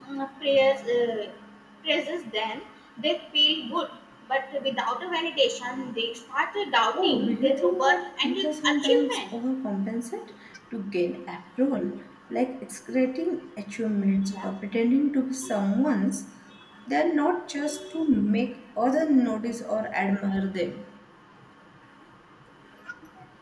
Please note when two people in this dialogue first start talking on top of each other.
6.9 s

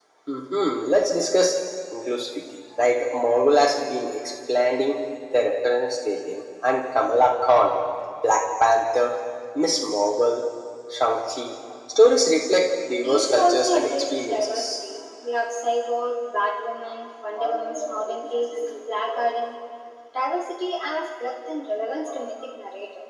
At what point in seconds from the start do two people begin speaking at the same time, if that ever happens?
12.9 s

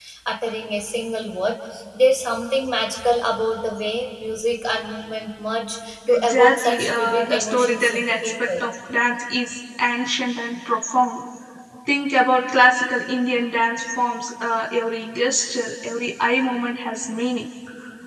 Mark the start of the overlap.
6.1 s

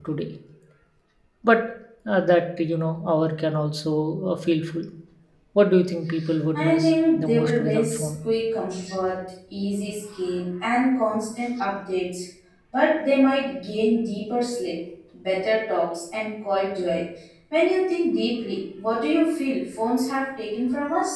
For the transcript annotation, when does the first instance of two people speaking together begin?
6.5 s

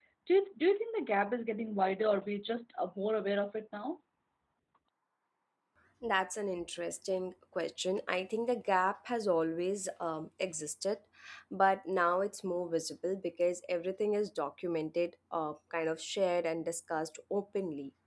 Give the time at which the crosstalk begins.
none

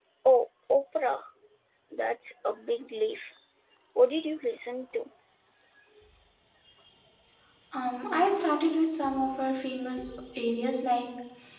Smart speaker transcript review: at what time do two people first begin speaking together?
none

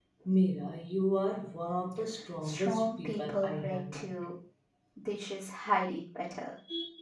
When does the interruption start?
2.4 s

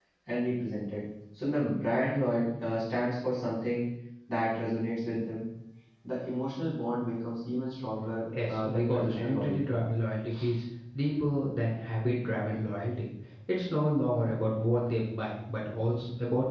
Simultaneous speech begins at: 8.3 s

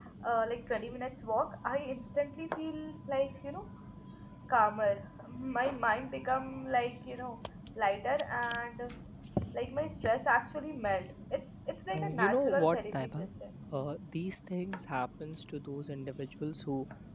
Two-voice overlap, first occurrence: 11.9 s

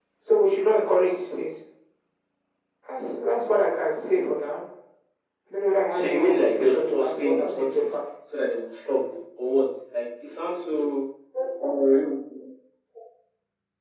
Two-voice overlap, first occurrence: 5.9 s

